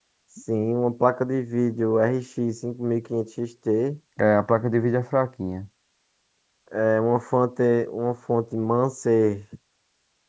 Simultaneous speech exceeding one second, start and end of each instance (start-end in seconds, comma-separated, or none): none